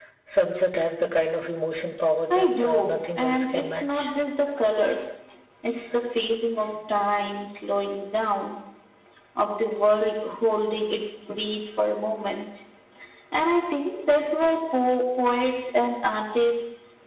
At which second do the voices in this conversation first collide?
2.3 s

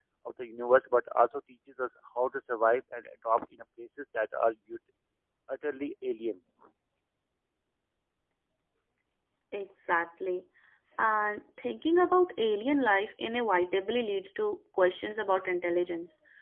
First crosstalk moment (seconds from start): none

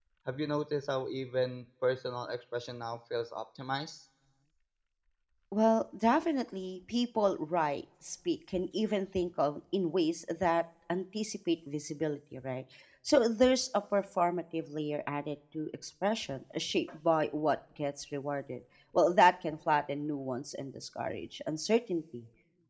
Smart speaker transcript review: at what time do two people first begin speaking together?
none

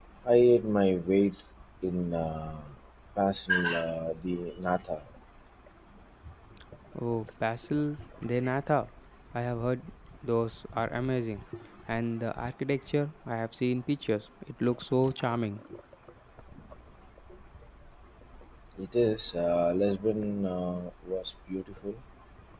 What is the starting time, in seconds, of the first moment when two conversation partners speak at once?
none

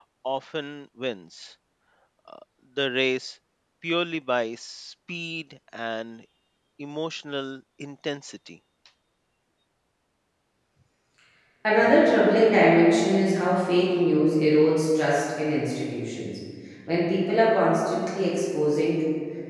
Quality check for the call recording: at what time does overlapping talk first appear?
none

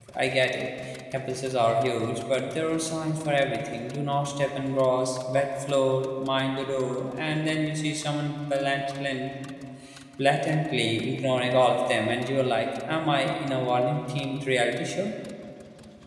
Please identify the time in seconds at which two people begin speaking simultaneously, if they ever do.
none

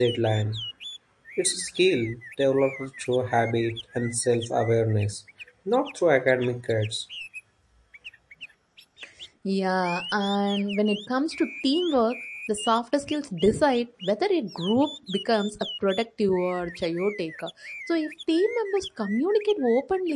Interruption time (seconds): none

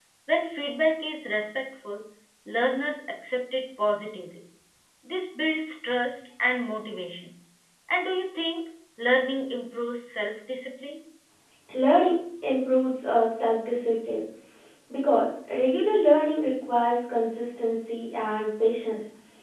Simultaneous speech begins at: none

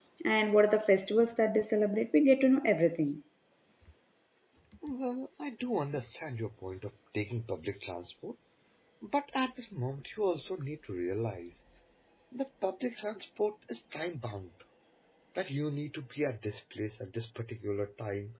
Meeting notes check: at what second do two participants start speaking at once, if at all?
none

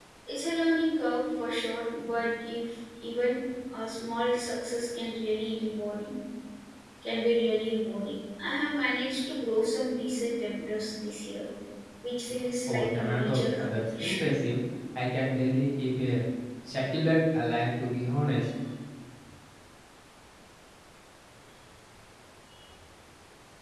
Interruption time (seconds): 12.7 s

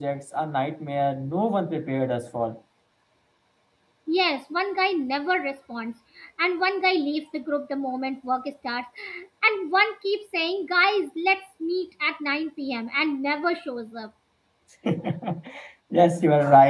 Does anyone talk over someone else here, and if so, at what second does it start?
none

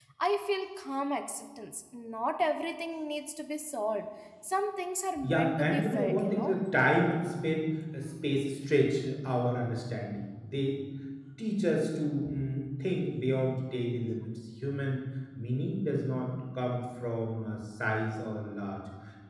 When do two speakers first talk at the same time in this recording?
5.2 s

